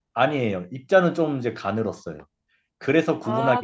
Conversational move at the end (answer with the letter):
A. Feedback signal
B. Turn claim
B